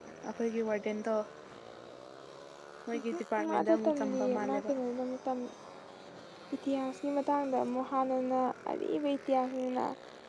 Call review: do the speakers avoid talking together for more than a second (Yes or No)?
No